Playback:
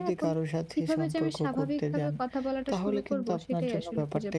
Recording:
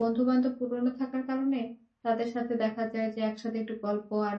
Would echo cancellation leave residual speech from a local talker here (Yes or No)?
Yes